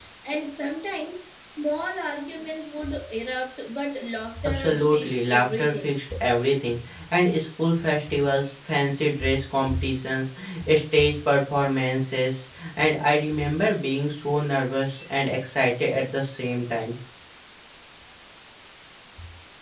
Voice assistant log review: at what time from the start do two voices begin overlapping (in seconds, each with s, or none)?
4.3 s